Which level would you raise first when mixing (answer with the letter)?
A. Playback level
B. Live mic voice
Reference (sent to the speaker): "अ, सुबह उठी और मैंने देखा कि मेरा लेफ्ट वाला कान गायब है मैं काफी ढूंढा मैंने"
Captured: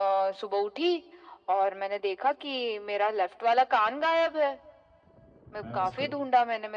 B